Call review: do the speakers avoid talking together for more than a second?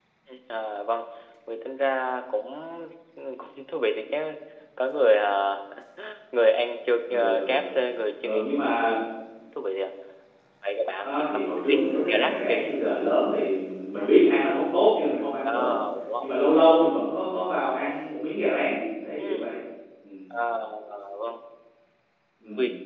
No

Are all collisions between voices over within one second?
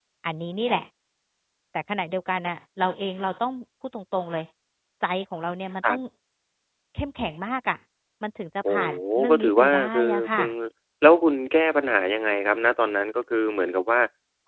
No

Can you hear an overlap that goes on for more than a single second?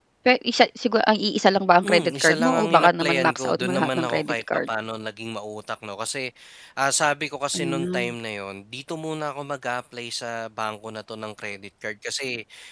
Yes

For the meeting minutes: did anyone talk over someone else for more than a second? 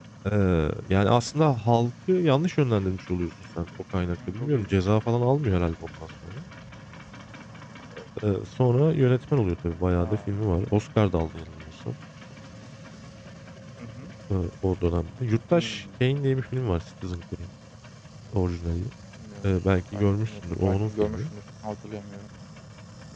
Yes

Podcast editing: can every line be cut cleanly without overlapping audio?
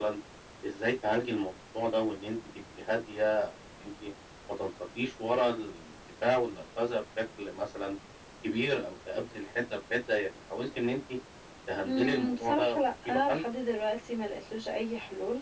No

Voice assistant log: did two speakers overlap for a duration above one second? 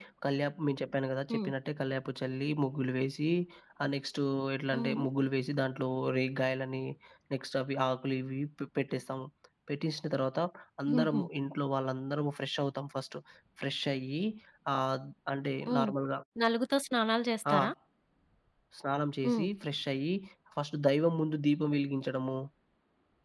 No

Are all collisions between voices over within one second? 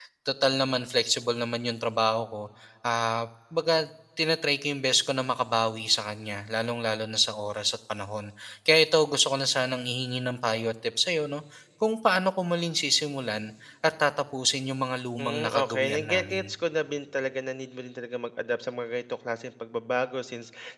No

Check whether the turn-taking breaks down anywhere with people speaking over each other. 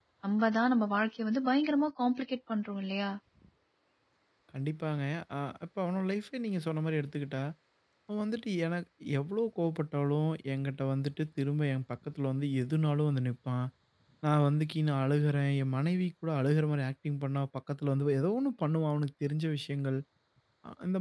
No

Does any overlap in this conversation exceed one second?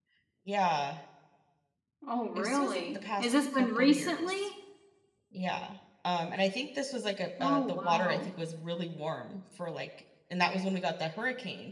Yes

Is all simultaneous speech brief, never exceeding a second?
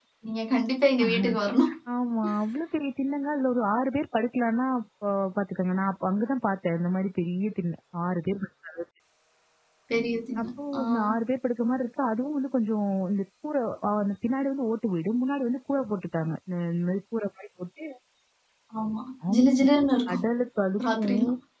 Yes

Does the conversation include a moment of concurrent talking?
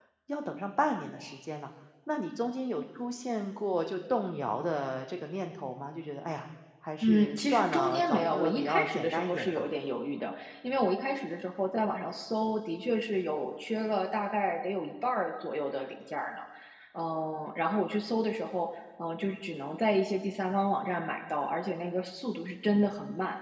Yes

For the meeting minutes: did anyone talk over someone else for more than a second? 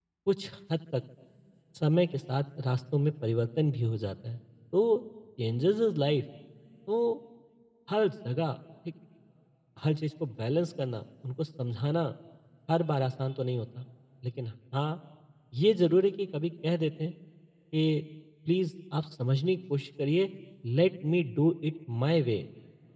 No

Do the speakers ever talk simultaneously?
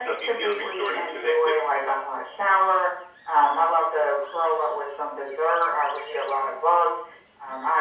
Yes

